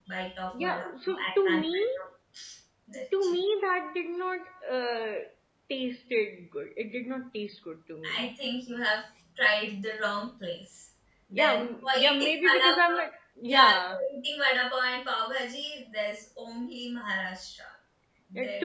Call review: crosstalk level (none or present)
present